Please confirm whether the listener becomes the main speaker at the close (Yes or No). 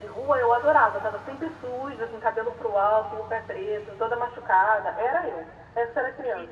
Yes